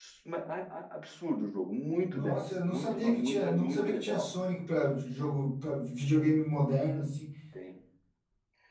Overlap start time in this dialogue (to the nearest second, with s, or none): 2 s